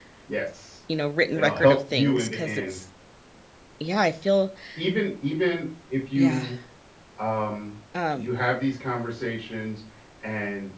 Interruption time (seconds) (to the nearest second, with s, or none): 1 s